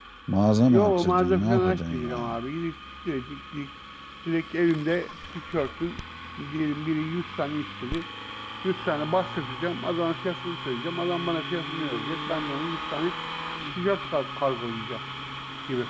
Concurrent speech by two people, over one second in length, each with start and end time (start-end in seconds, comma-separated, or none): 0.6-2.3